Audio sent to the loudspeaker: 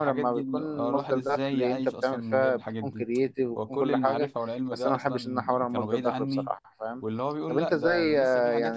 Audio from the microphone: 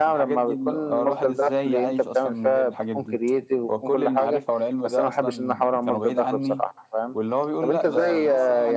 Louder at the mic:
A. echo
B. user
A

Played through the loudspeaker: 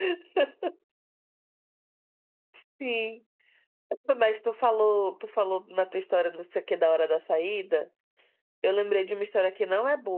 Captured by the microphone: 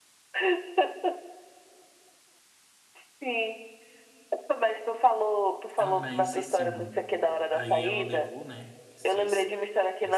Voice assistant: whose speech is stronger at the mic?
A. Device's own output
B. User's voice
A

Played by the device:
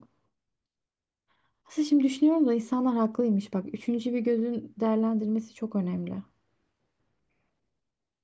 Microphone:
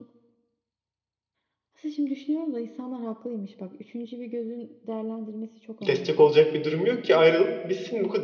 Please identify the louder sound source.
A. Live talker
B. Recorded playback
A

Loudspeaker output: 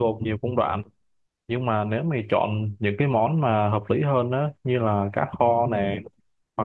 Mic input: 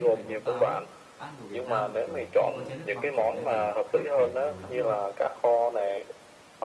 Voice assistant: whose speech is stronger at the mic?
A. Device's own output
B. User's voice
A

